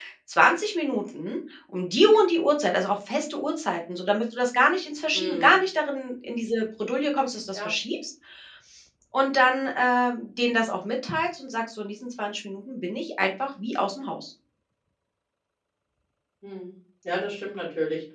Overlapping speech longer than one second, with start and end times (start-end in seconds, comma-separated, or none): none